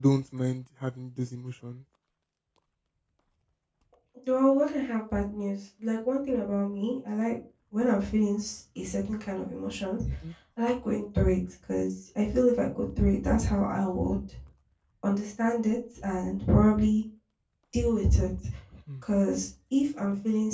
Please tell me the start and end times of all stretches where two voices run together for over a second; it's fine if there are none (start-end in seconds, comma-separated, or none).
none